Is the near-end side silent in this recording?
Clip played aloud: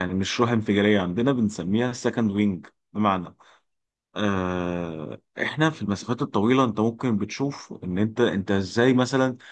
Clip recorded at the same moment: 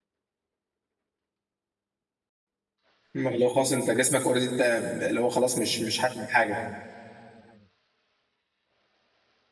No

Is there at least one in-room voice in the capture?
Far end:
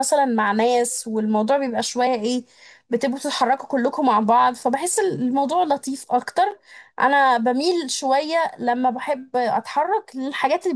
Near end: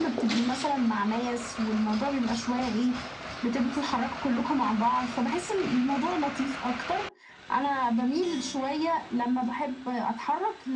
No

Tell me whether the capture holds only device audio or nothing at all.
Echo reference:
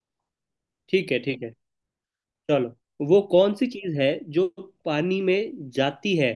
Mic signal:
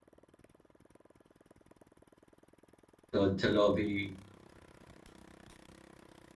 No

